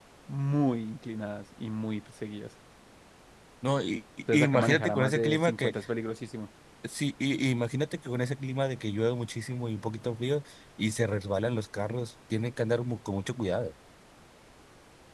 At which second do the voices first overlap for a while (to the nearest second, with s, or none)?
4 s